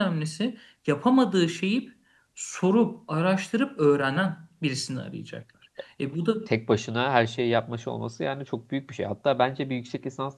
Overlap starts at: none

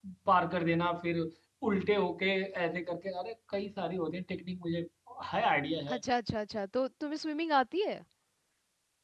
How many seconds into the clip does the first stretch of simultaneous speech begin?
none

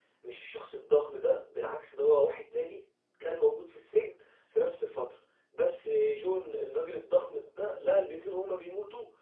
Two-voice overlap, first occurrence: none

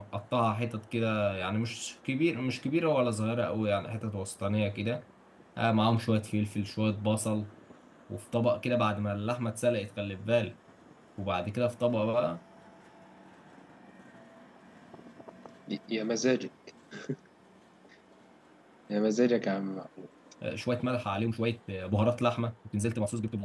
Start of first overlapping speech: none

